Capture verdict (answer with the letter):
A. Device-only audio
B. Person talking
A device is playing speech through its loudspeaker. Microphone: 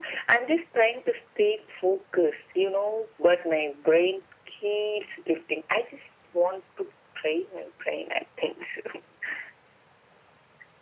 A